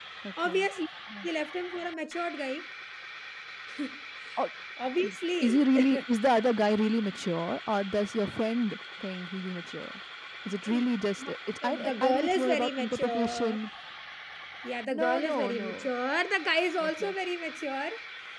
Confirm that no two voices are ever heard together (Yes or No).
No